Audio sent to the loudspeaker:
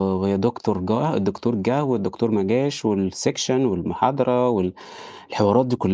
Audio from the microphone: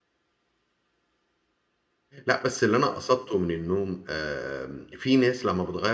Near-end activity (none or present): present